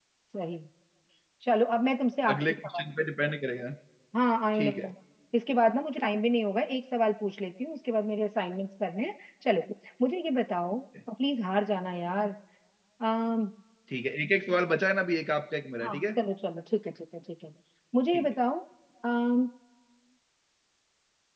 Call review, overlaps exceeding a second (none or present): none